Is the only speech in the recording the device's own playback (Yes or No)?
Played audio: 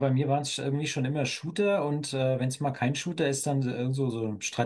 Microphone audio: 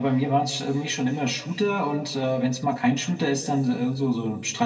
Yes